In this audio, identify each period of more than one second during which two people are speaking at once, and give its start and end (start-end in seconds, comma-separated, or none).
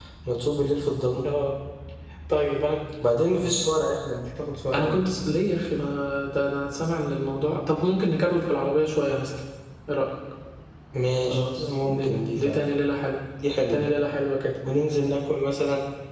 11.3-12.6